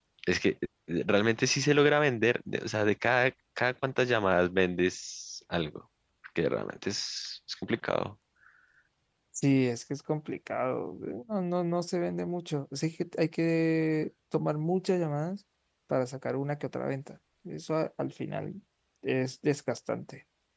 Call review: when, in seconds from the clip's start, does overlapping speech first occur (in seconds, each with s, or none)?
none